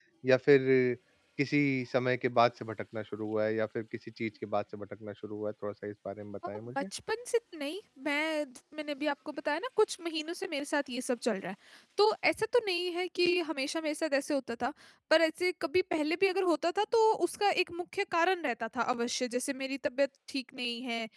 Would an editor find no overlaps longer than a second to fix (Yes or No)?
Yes